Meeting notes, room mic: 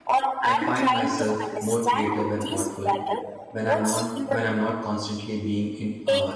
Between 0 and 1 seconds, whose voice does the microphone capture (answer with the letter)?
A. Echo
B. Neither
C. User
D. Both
D